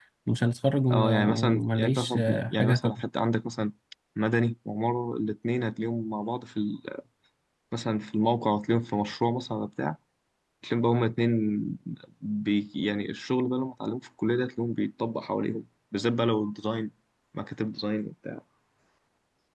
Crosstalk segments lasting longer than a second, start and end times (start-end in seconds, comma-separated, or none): 0.9-3.0